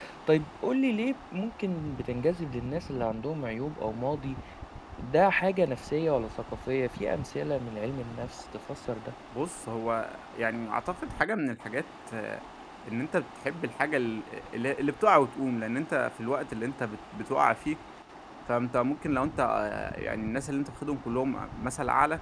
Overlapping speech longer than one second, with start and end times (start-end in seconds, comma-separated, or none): none